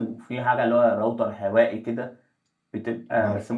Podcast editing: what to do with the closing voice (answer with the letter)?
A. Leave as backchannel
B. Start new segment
A